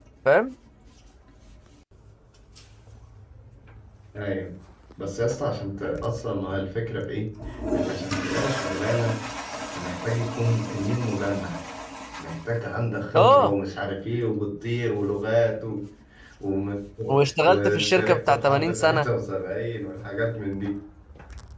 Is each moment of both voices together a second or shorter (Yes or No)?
No